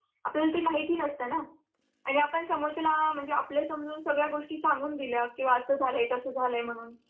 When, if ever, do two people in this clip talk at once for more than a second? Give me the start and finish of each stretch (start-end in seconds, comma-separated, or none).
none